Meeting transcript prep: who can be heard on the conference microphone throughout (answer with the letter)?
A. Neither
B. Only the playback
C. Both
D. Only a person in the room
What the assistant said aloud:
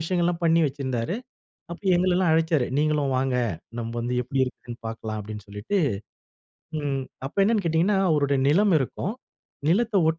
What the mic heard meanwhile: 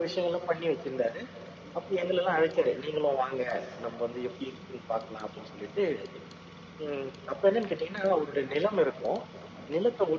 B